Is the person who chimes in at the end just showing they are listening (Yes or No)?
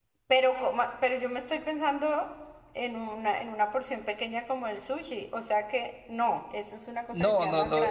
No